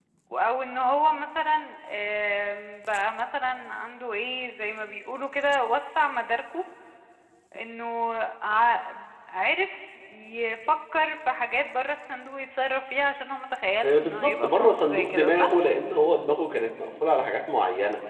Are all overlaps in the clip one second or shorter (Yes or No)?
No